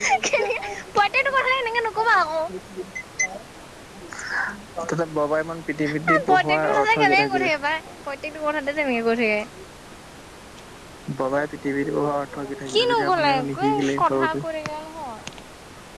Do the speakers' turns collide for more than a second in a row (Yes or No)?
Yes